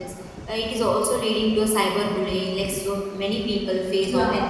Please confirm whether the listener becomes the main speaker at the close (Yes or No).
No